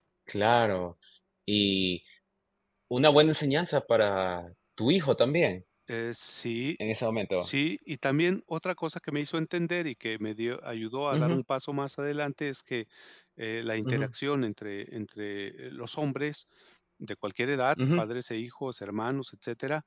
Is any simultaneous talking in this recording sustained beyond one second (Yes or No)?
No